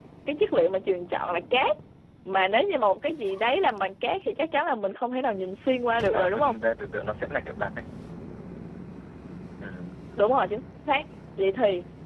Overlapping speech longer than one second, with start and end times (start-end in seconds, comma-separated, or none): none